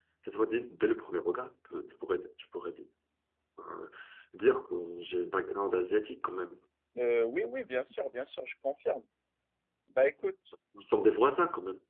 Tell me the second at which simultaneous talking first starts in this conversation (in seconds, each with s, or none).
none